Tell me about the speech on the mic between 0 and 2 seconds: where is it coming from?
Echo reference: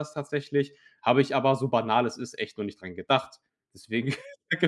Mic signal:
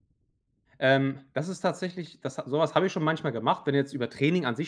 user only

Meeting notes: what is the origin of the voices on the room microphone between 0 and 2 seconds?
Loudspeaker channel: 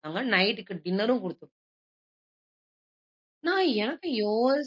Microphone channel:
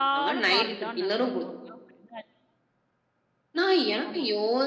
both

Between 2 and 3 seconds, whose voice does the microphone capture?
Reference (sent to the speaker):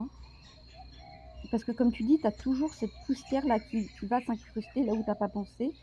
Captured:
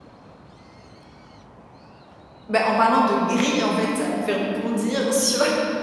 user only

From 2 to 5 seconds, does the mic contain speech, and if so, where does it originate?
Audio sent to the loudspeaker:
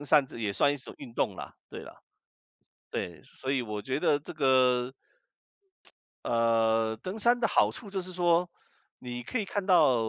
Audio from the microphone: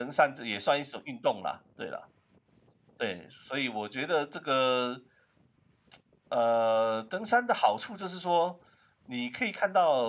echo only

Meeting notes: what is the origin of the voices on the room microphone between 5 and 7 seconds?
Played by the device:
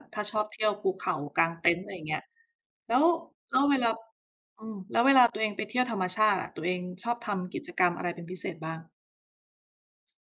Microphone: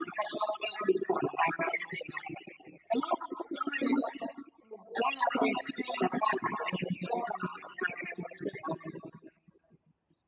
echo only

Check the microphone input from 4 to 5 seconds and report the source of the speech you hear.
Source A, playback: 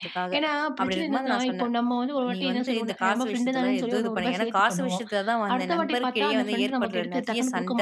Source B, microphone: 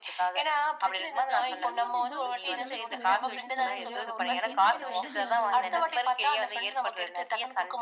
both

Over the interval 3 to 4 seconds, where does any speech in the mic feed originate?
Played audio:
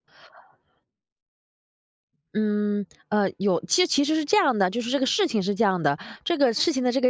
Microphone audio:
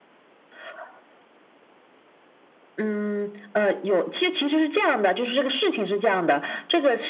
echo only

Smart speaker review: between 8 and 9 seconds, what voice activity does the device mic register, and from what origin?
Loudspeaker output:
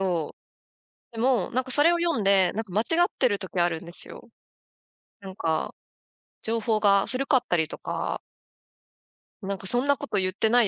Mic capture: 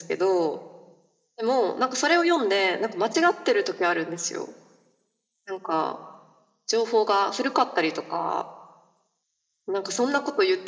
echo only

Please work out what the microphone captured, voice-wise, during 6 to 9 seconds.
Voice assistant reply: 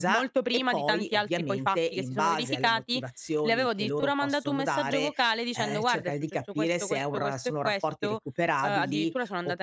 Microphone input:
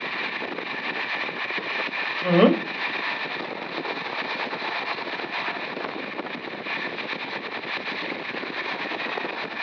neither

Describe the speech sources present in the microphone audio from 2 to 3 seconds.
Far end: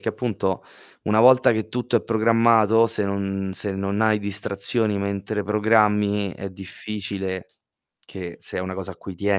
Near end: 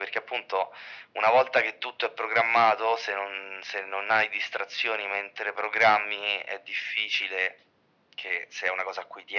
echo only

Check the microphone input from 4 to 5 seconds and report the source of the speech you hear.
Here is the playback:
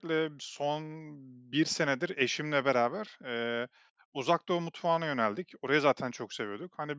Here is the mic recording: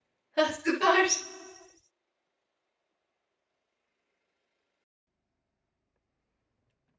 neither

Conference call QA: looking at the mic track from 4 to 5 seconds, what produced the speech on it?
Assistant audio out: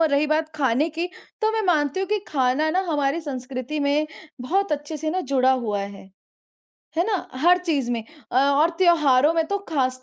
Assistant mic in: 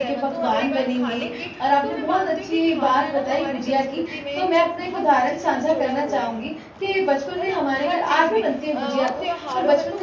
both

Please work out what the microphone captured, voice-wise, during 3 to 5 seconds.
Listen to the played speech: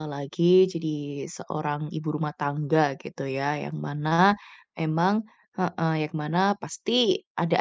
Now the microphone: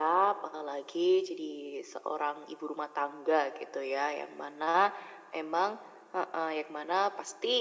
echo only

